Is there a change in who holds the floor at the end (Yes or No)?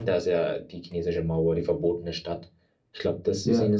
No